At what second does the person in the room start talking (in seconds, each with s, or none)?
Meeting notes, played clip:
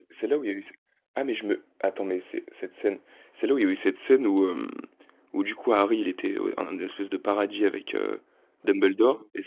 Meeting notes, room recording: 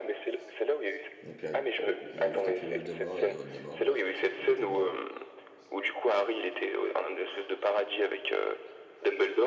1.2 s